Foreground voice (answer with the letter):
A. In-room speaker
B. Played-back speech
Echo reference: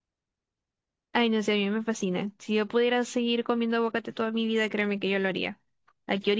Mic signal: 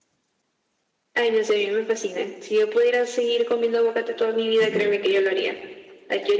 B